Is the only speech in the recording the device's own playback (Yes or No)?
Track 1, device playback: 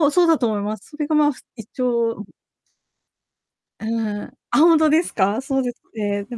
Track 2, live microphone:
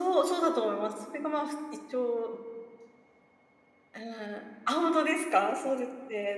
Yes